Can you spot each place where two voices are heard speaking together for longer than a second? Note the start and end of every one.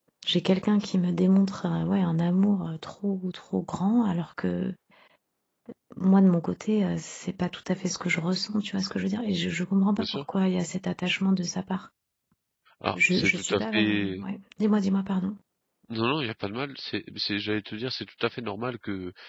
13.0-14.2

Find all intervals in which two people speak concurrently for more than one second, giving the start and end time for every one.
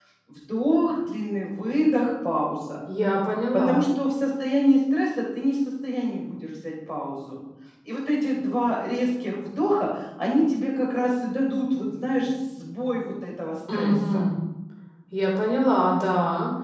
none

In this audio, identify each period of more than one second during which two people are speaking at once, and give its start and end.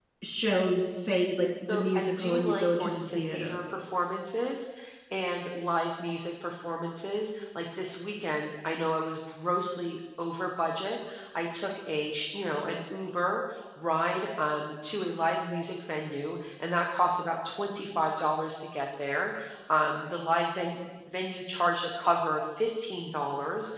1.7-3.6

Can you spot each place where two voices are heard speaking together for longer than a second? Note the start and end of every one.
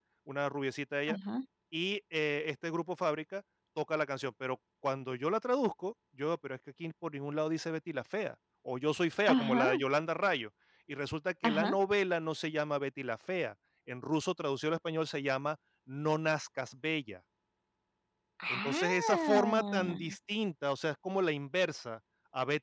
18.5-20.1

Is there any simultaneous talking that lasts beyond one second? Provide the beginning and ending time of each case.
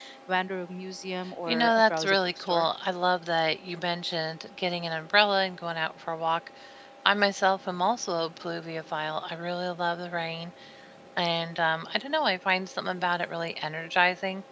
1.5-2.7

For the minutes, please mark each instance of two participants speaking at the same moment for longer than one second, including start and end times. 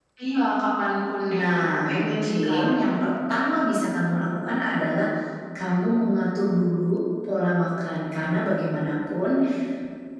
1.3-2.8

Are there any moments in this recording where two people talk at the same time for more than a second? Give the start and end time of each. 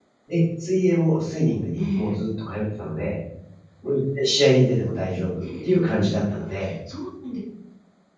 5.4-6.7

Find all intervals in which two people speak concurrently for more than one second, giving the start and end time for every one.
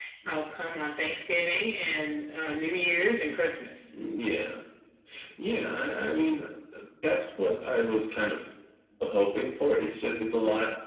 none

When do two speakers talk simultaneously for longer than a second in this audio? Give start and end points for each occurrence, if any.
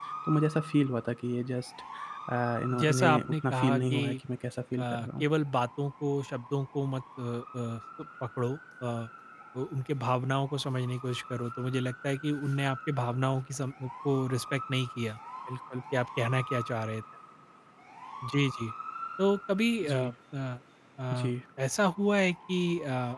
2.8-4.1

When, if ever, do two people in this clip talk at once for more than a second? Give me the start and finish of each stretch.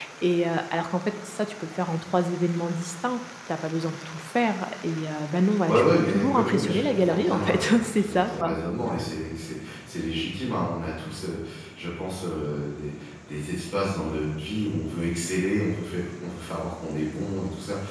5.7-8.5

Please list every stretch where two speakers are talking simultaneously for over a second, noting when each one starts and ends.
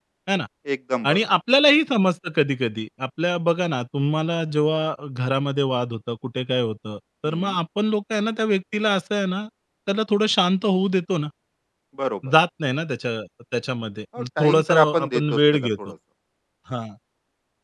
14.2-15.7

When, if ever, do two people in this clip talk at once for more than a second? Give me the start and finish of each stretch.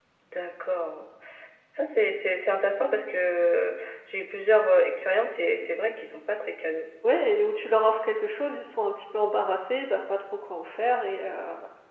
none

